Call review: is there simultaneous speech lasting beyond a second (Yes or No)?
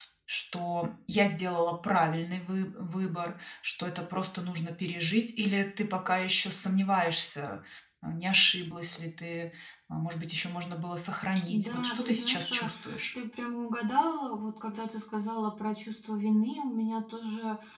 Yes